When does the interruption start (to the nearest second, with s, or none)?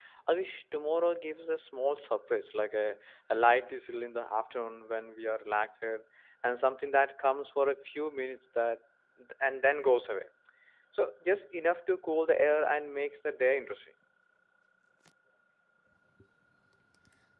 none